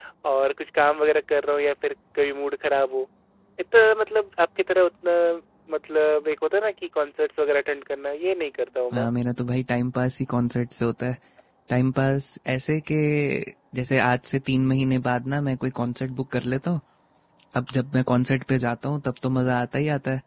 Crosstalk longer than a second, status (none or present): none